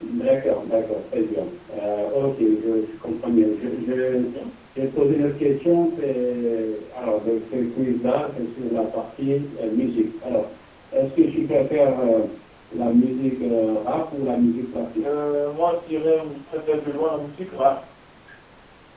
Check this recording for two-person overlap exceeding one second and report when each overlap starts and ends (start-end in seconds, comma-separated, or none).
none